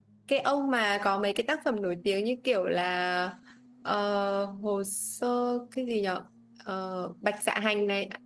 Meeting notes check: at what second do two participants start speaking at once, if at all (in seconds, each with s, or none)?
none